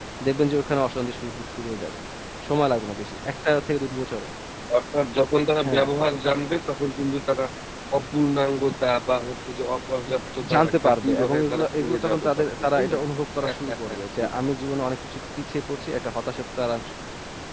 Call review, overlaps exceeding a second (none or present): present